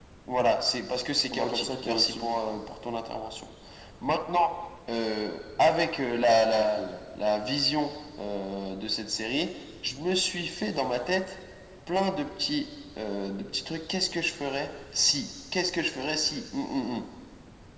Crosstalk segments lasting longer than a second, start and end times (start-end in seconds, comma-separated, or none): 1.3-2.6